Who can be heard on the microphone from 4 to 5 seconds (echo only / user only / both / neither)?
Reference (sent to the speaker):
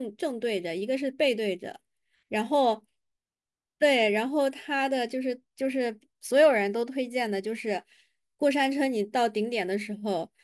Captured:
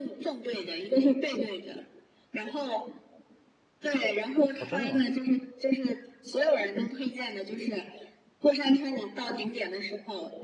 both